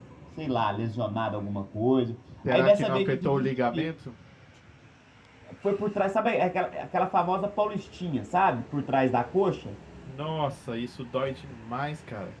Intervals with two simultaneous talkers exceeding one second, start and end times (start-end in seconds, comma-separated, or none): 2.5-3.9